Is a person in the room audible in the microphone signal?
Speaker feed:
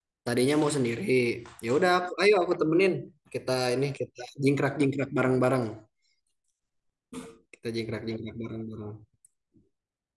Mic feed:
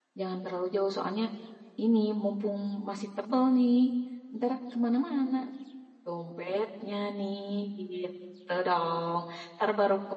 Yes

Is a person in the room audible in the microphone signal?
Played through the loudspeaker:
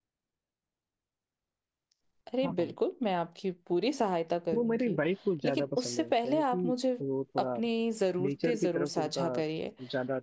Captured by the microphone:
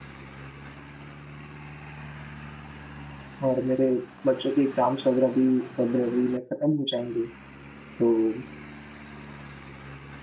Yes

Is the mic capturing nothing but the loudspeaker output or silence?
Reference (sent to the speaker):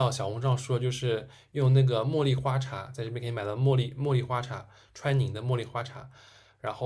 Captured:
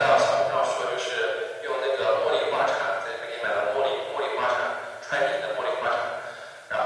Yes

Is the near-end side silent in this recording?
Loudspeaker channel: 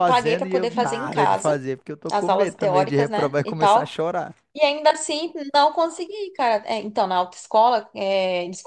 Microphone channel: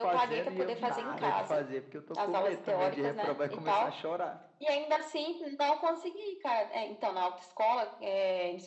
Yes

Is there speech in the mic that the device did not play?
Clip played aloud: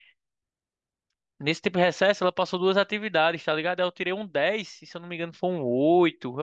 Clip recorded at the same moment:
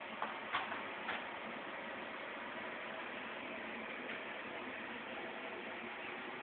No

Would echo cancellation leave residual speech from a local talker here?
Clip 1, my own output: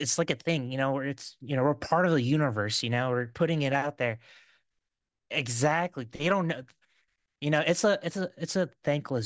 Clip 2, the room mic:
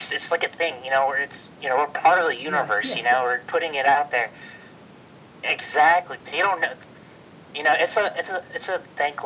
Yes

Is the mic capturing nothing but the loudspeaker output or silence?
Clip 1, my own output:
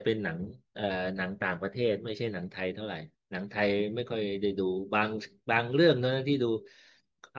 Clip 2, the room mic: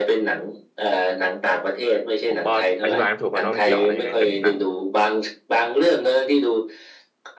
No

